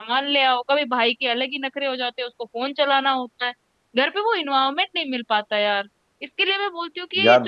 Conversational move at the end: listening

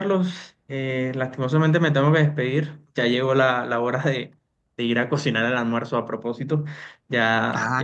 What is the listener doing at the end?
listening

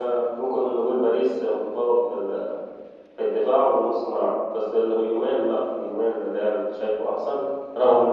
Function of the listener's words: listening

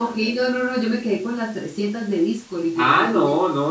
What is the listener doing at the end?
taking over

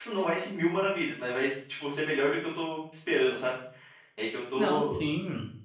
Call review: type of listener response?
taking over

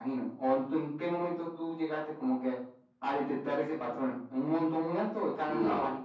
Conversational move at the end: taking over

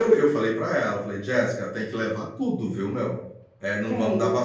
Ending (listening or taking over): listening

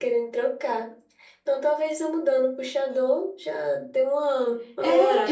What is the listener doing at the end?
taking over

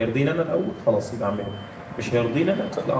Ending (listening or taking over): listening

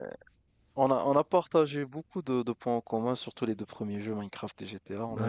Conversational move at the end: taking over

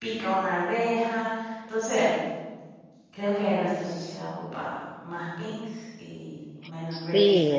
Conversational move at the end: taking over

